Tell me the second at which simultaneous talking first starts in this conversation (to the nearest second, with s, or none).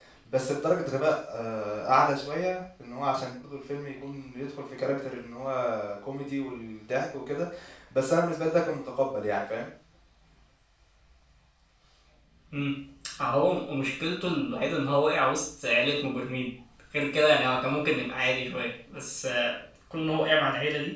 none